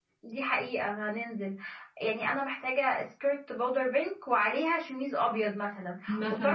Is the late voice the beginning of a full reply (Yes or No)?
No